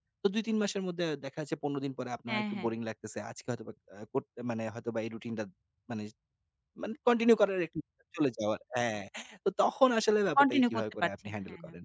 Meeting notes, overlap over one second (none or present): present